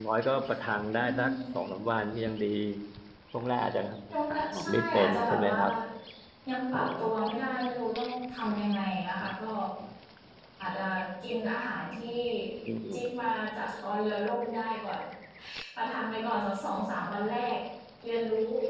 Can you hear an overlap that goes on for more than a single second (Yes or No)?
Yes